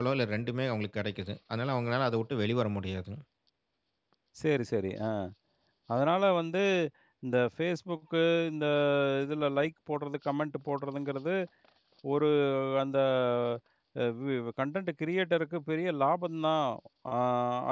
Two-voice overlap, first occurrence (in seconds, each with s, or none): none